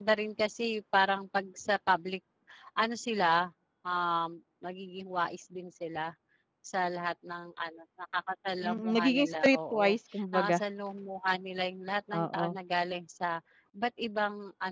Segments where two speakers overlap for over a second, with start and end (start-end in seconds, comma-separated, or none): 8.6-10.6